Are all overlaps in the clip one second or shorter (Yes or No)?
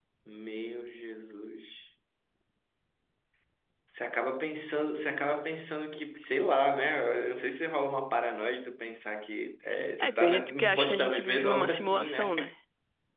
No